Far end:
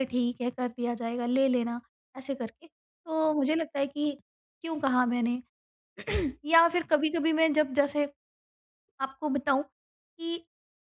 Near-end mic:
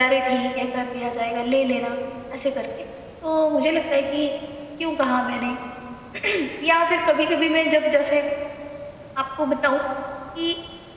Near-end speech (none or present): none